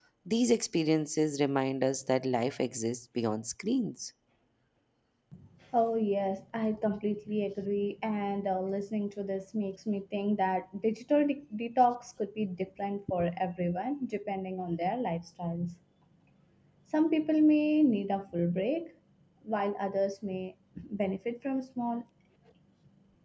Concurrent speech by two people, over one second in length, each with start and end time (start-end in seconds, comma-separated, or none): none